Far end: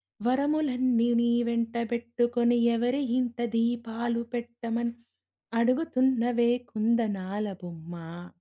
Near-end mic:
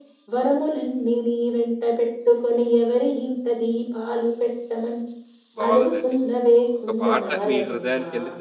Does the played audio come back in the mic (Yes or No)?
Yes